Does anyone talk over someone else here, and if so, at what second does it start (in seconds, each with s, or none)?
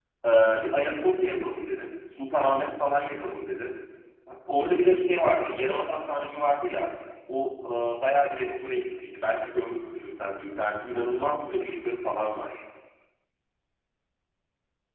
none